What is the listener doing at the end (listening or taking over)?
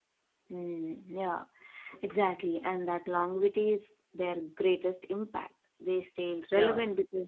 listening